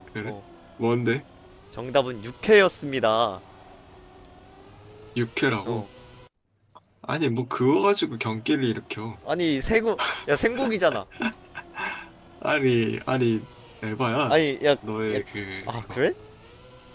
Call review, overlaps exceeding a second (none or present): none